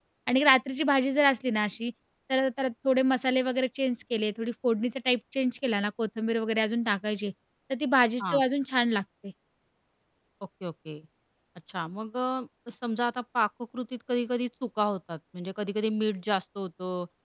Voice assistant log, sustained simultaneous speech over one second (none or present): none